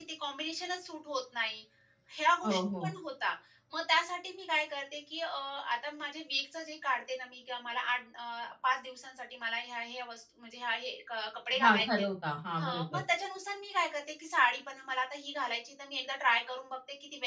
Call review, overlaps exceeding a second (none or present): none